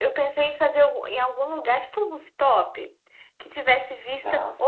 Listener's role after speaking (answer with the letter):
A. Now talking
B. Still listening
B